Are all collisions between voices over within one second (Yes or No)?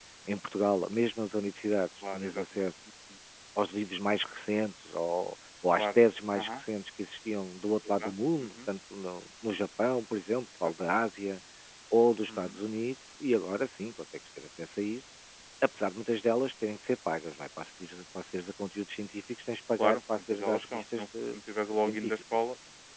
No